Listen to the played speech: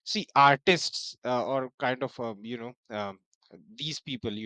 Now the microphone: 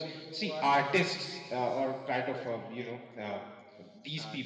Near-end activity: present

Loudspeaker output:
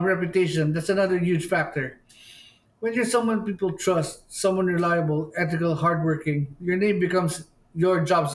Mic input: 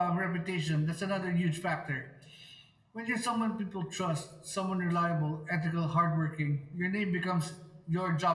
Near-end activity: none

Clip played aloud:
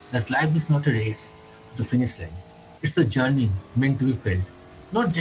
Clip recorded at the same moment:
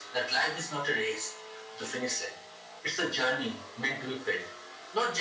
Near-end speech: none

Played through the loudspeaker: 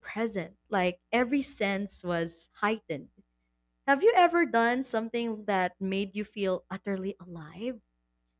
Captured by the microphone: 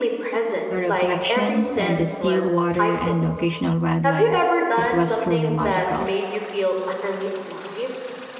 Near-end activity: present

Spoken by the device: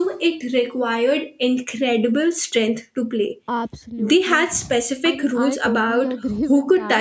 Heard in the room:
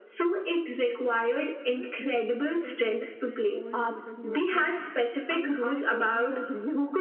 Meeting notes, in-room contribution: present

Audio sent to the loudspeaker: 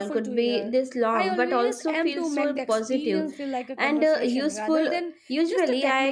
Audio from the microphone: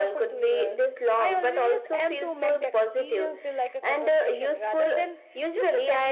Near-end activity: none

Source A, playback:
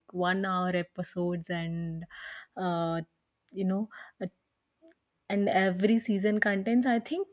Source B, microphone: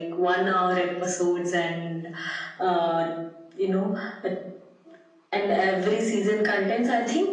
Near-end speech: none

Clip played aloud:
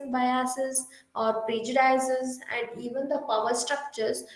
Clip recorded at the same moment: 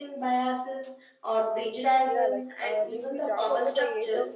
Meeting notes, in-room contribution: present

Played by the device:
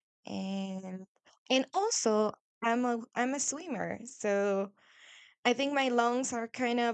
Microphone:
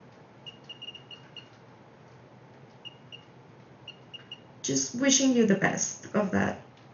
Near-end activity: present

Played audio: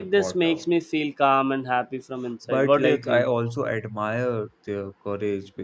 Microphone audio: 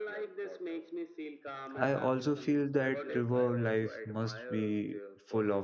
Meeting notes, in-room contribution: present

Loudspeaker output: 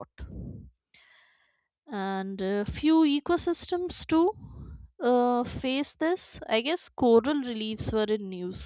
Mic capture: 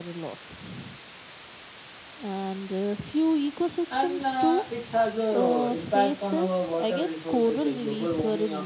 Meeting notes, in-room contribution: present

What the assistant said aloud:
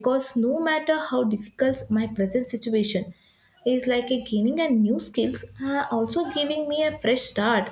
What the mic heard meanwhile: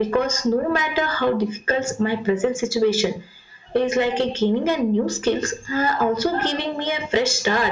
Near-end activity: none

